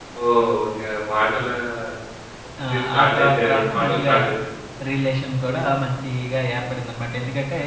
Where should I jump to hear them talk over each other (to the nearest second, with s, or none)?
3 s